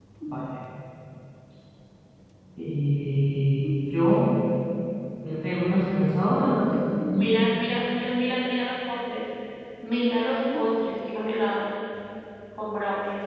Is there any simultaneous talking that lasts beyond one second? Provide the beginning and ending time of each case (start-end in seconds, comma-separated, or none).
none